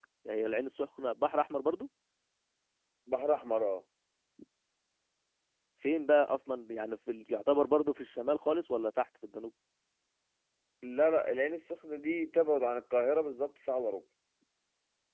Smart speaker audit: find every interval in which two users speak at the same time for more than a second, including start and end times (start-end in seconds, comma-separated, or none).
none